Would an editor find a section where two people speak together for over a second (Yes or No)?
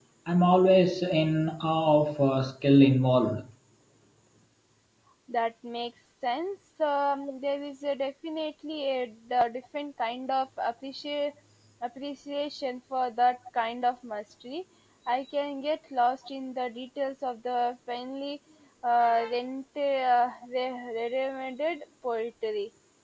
No